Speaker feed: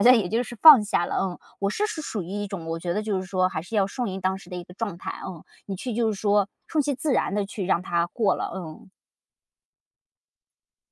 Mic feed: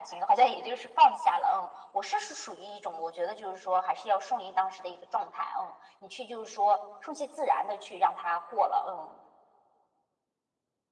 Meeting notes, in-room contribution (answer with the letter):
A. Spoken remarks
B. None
B